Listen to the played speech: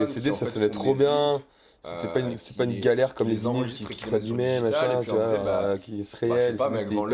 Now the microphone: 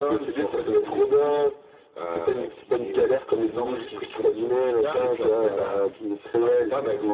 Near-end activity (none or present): none